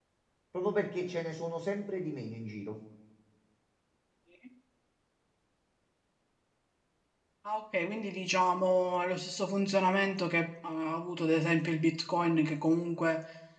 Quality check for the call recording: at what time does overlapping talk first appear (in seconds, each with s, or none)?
none